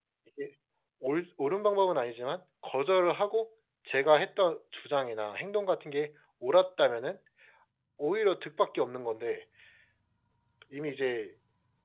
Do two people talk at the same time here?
No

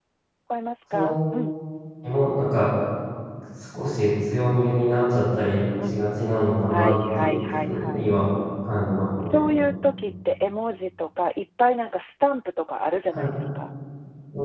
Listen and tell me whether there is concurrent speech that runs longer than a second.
Yes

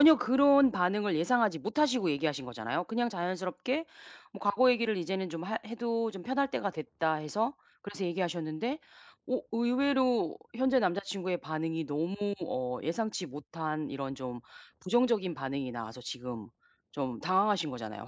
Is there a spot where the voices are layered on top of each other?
No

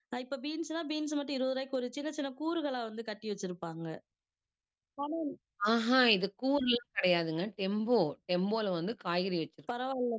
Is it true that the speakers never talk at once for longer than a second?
Yes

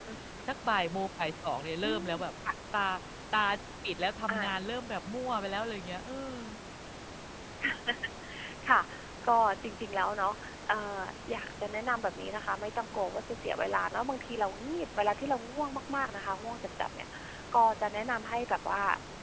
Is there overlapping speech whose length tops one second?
No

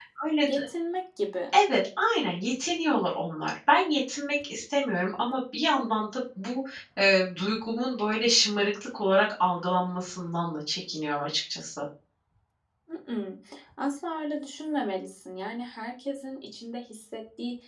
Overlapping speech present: No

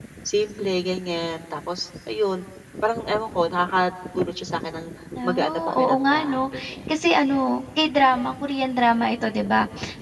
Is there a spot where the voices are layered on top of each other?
Yes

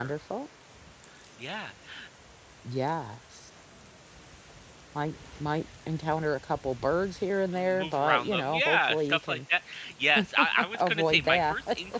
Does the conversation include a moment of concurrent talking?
Yes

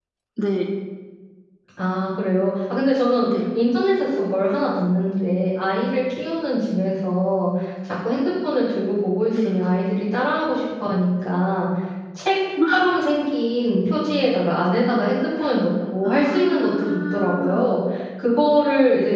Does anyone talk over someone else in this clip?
Yes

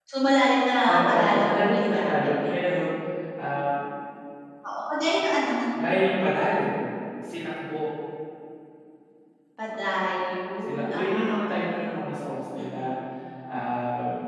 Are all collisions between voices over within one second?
No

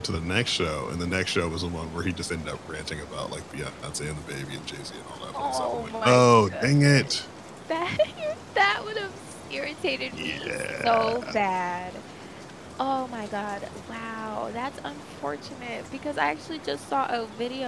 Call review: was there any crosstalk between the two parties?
Yes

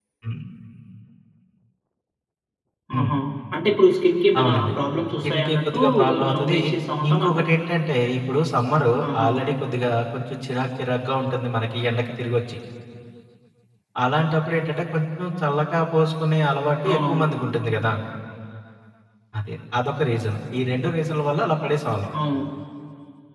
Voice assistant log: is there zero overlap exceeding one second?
No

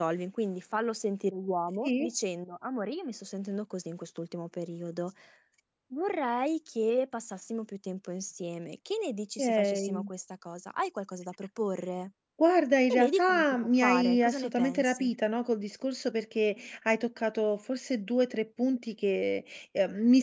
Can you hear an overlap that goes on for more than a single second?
Yes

